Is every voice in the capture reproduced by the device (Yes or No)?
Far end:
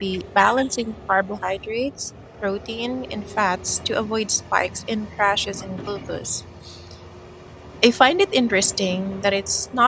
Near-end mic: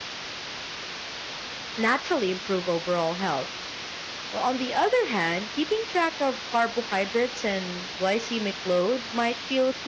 No